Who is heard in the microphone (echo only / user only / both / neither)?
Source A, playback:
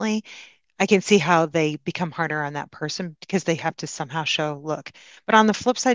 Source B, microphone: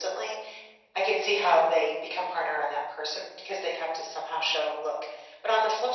echo only